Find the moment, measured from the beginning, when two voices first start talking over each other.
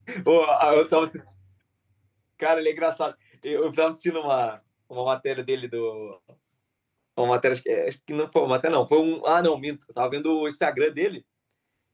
none

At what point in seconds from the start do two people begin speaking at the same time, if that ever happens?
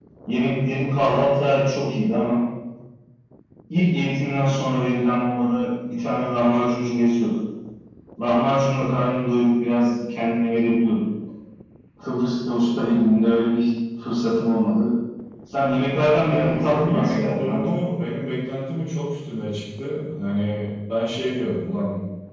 16 s

